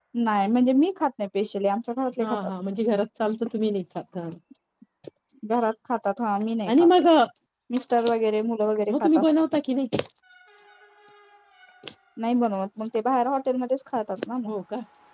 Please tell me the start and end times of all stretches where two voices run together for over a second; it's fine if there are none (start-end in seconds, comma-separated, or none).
none